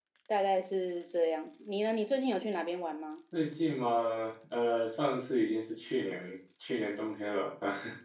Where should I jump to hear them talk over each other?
none

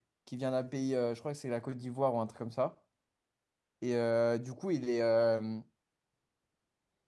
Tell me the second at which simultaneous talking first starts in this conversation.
none

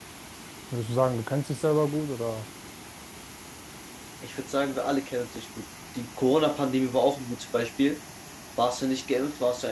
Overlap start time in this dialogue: none

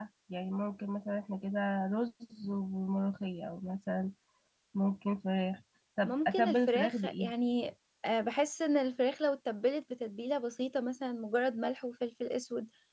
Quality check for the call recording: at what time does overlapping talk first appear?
6.0 s

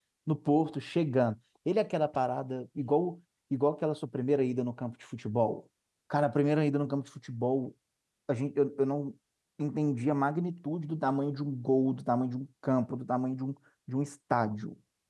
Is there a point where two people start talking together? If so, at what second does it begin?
none

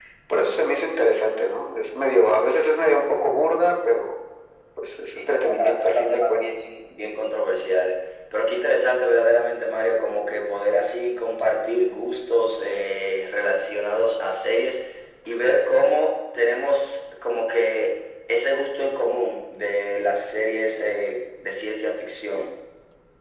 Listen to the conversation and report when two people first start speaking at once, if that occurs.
5.1 s

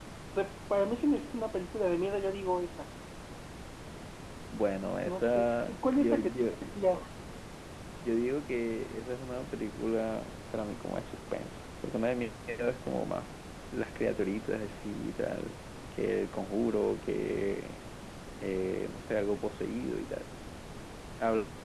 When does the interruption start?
5.0 s

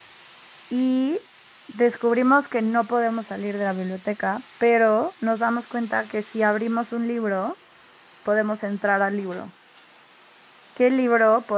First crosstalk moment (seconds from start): none

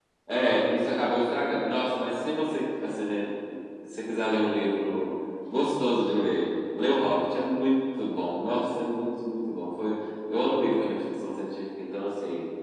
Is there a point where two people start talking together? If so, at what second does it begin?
none

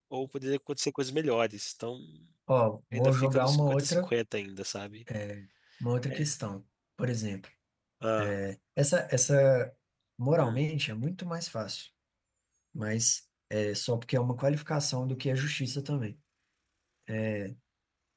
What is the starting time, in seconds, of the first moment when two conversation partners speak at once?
2.9 s

